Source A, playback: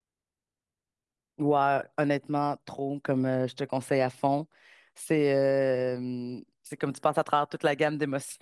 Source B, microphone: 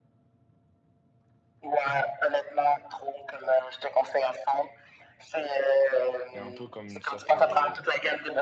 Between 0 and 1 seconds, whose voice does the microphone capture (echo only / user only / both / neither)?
neither